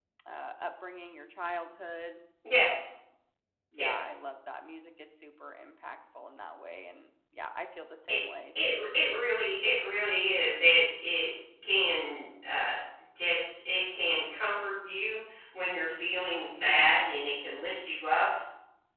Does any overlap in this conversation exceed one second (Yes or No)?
No